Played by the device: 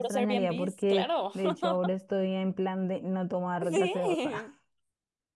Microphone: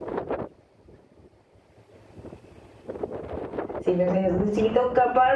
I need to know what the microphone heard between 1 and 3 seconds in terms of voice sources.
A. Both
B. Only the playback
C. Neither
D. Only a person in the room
C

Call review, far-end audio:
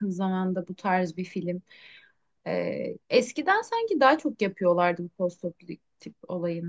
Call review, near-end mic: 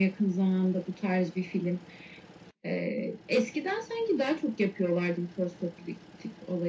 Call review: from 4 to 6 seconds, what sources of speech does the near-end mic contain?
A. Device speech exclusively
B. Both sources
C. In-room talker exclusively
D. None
A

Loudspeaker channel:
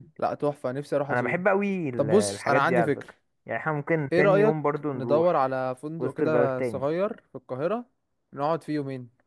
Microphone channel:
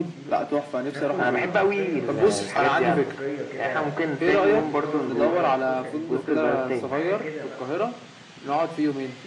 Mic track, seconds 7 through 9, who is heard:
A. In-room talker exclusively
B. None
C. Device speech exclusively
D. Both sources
D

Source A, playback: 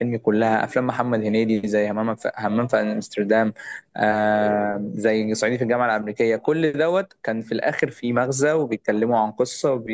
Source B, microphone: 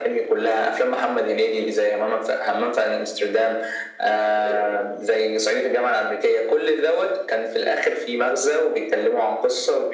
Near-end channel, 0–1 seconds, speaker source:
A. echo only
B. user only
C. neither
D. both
A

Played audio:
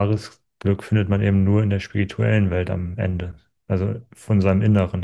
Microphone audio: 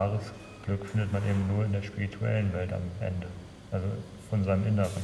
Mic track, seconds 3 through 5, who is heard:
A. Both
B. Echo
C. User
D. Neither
B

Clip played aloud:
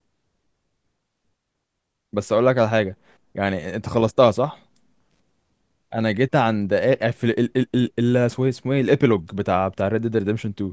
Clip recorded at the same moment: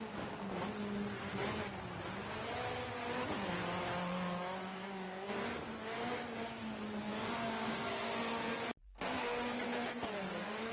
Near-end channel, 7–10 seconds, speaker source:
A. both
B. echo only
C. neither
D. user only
C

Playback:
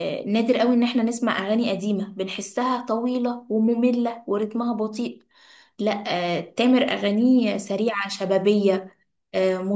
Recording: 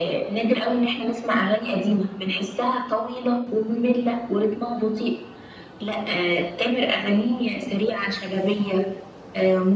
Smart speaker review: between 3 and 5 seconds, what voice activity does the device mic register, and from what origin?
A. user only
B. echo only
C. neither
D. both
B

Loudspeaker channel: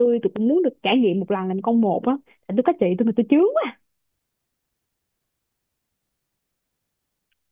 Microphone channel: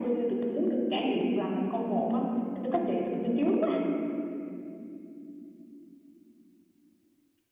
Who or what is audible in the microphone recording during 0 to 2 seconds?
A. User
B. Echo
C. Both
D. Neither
B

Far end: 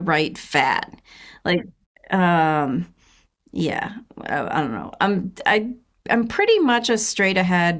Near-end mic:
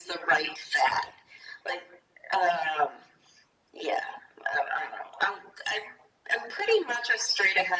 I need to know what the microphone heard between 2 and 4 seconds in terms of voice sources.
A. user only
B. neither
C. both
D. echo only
D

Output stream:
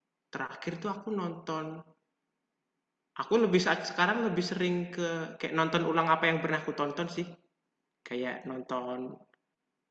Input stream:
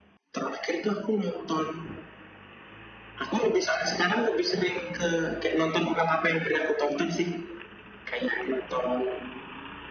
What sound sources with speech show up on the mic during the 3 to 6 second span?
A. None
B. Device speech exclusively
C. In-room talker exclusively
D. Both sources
B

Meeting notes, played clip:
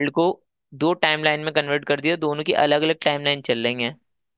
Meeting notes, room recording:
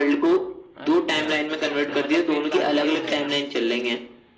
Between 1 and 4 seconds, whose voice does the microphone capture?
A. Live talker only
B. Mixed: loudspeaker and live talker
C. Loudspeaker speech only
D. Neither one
B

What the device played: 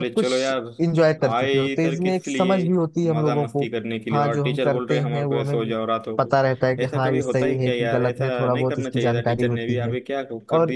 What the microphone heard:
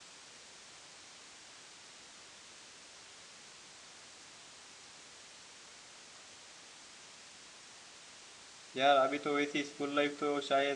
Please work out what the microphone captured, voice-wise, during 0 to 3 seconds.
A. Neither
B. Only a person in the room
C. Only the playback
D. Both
A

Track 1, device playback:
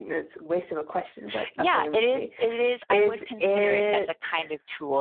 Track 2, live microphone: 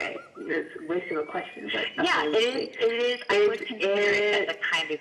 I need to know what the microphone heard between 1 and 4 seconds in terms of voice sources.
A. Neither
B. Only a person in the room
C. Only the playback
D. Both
C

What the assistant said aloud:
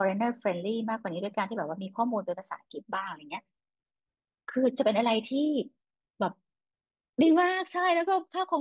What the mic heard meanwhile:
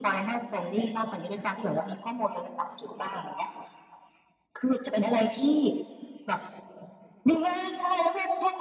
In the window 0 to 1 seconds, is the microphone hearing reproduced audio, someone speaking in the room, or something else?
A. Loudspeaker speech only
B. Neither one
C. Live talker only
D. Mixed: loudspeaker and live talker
A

